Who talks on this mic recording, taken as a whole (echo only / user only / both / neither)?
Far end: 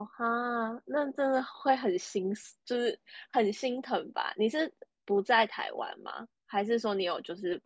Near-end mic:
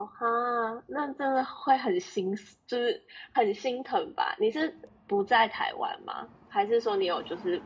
echo only